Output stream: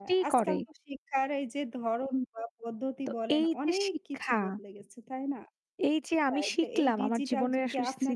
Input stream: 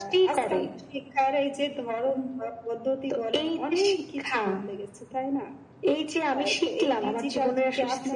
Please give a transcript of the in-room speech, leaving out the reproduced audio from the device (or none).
none